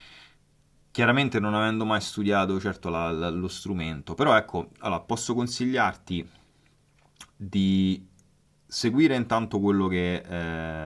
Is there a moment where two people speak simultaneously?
No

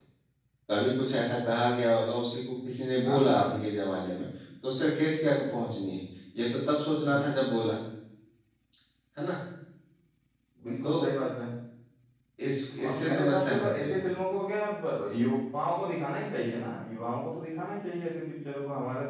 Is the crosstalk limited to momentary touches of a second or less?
No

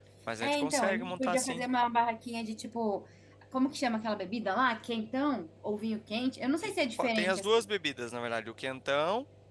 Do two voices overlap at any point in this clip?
Yes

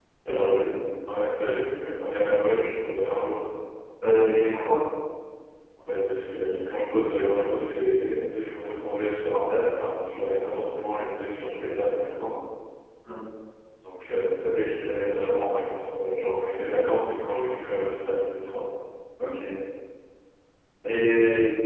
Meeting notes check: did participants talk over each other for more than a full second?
No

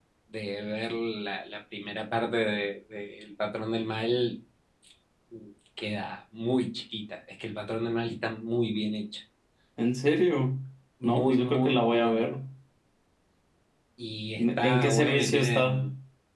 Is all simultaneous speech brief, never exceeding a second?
No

